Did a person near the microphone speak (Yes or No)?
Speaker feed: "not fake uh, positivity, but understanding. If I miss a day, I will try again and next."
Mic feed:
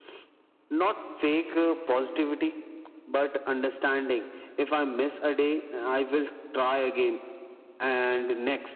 No